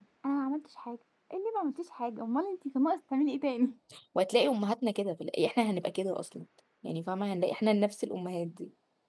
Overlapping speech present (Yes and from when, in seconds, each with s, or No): No